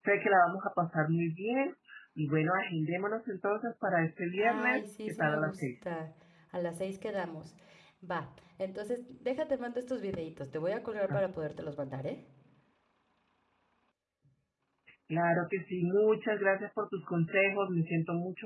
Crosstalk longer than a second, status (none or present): present